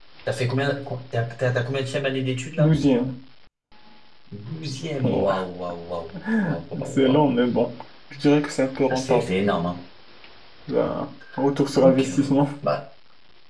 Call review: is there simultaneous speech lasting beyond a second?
No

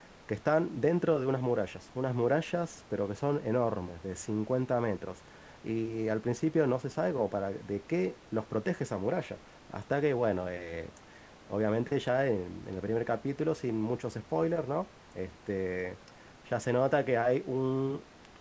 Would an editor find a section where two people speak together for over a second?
No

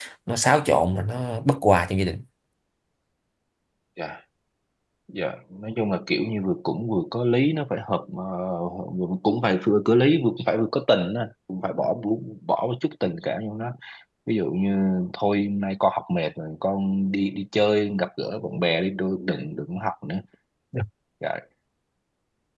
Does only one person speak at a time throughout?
Yes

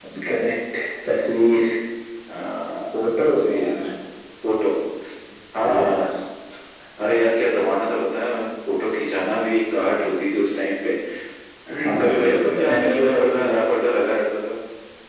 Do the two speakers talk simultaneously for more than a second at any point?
Yes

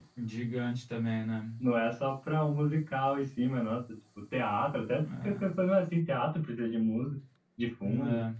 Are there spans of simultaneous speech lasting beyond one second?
No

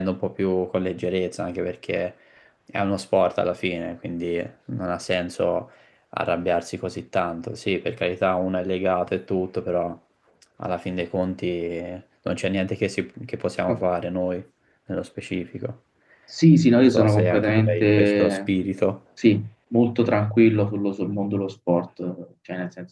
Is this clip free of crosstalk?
No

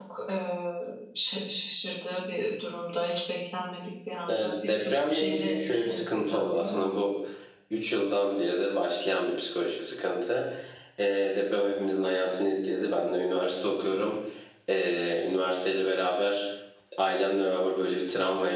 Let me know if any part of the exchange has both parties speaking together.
Yes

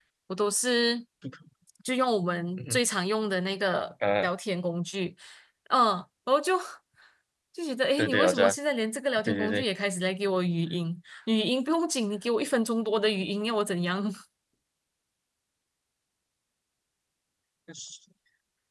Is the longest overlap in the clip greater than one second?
No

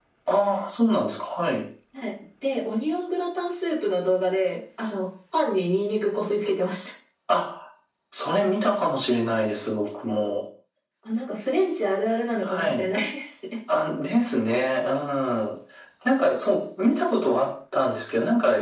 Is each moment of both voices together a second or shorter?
Yes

